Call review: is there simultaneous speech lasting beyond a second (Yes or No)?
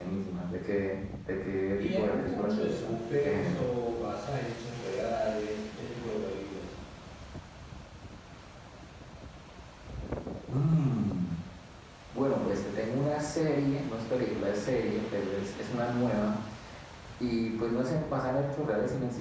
Yes